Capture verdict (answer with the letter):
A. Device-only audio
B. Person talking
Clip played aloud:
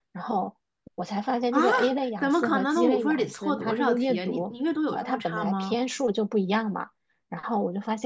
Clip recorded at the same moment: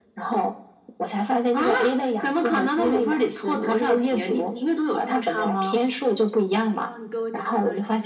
B